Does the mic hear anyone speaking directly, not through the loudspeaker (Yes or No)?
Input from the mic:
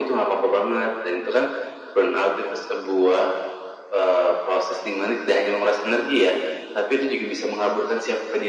No